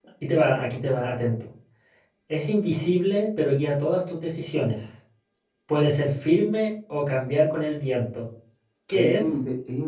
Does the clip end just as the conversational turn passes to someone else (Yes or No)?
Yes